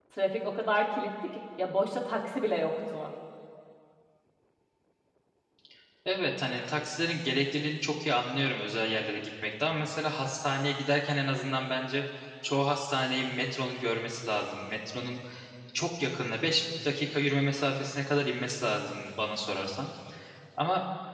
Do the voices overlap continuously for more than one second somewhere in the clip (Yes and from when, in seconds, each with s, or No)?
No